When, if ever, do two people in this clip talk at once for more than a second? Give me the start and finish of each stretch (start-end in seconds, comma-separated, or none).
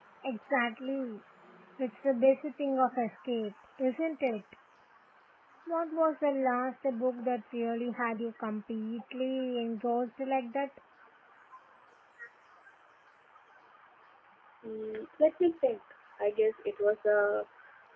none